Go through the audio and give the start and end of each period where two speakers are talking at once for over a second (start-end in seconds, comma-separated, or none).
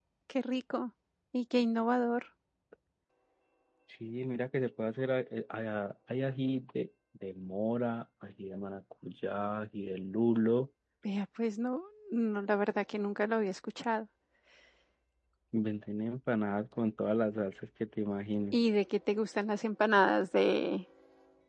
none